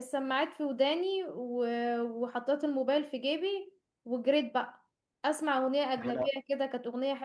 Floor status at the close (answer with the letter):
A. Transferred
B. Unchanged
B